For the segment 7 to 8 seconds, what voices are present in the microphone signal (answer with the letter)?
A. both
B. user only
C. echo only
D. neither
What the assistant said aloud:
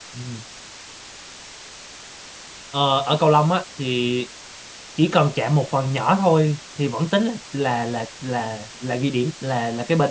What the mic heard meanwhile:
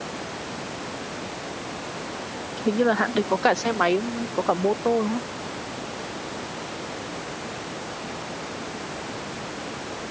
D